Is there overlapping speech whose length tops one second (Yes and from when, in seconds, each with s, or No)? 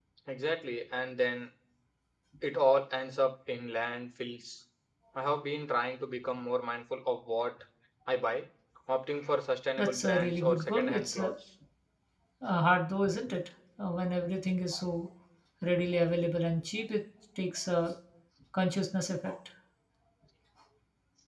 Yes, from 9.8 s